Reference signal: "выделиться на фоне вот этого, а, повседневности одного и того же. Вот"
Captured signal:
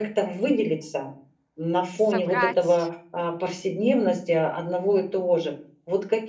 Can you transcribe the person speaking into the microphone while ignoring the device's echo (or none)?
собрать